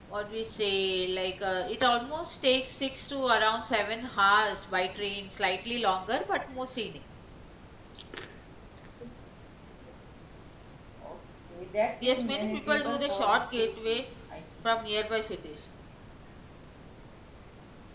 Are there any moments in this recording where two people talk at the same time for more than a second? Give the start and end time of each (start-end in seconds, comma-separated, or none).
12.0-14.0